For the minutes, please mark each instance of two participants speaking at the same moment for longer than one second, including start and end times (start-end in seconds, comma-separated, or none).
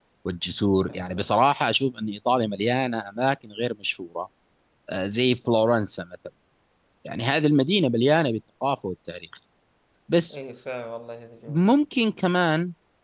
none